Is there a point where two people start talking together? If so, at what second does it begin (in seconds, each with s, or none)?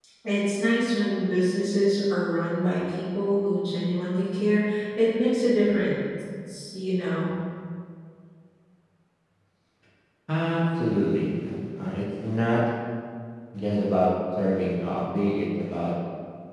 none